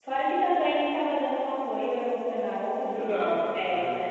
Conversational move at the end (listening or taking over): taking over